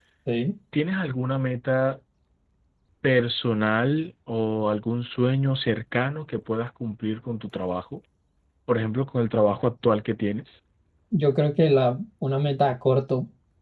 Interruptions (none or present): none